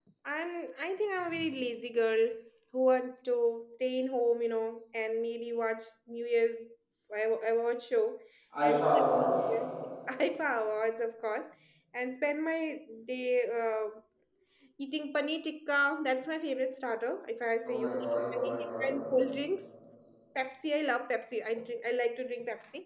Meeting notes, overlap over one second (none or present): present